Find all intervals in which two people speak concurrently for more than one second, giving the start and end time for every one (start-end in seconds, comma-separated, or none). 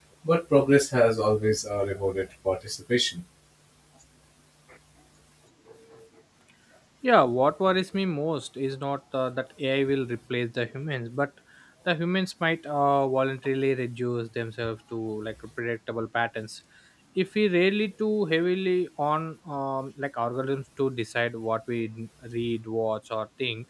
none